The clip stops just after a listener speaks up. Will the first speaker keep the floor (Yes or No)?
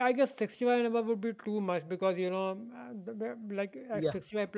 Yes